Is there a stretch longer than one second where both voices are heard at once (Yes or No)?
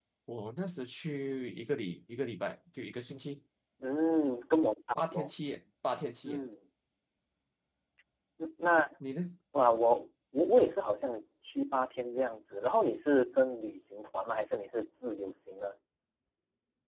No